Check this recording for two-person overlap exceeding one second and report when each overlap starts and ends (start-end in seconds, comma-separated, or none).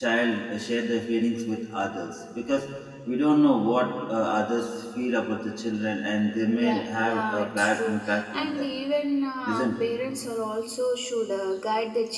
6.5-8.7